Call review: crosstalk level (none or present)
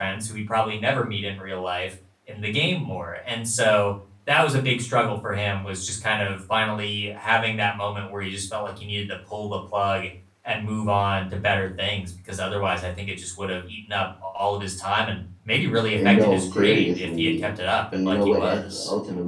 present